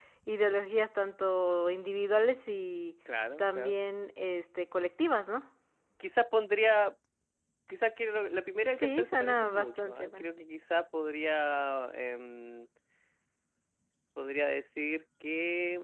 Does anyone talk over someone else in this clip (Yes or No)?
Yes